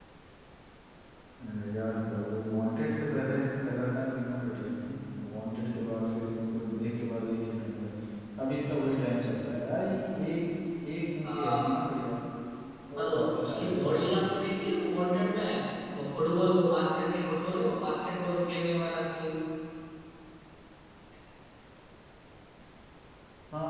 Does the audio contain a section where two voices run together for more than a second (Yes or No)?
Yes